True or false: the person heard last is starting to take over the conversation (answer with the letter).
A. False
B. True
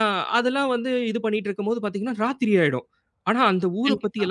A